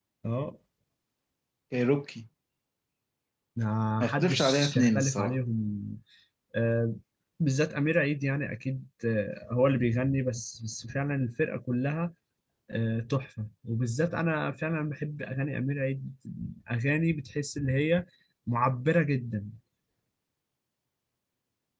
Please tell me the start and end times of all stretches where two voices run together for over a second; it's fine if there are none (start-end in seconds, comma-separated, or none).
4.0-5.3